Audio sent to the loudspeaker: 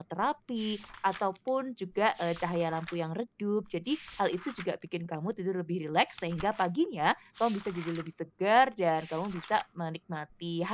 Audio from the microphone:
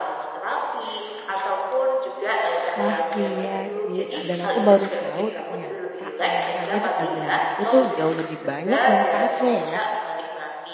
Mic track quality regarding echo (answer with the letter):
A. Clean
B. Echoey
B